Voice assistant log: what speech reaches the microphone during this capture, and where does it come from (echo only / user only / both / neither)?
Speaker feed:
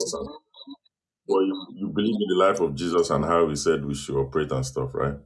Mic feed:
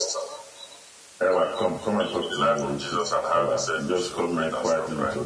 both